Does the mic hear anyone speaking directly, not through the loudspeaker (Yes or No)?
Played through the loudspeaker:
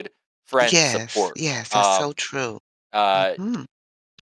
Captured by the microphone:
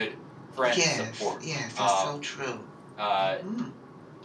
No